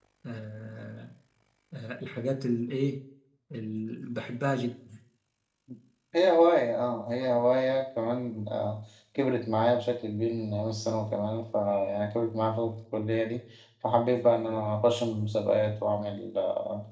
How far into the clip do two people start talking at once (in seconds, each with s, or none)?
none